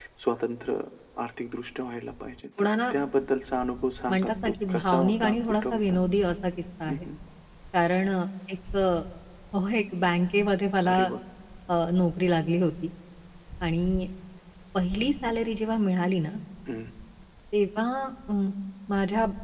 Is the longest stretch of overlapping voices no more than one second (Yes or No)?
No